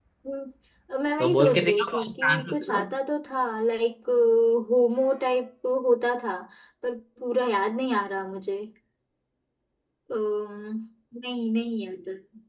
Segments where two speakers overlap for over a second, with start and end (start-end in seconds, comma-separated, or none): 1.2-2.8